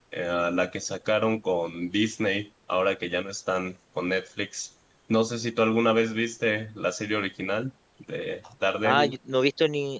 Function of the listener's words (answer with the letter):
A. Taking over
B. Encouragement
A